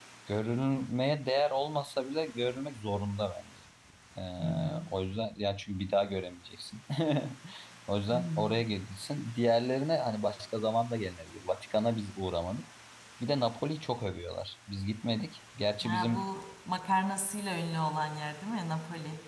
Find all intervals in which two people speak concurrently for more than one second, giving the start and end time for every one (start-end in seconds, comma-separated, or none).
none